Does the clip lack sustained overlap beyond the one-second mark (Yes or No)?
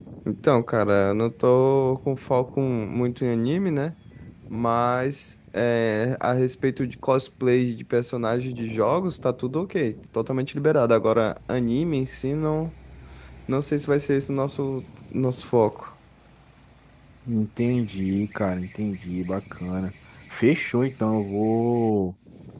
Yes